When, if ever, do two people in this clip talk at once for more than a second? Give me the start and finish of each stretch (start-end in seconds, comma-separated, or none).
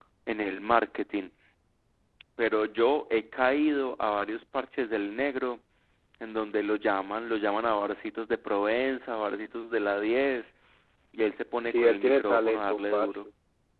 11.7-13.3